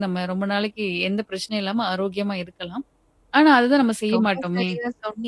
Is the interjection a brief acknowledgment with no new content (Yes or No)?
No